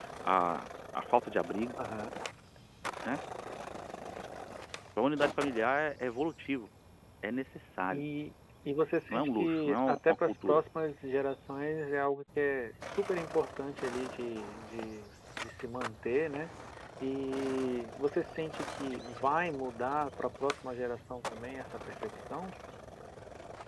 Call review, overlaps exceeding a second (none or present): present